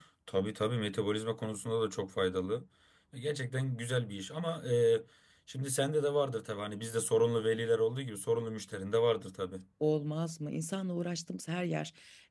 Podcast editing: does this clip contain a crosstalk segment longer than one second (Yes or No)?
No